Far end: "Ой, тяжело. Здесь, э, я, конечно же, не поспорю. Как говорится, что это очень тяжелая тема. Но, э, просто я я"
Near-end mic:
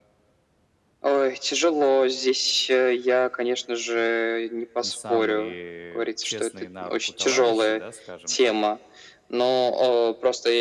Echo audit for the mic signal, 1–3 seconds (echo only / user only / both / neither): echo only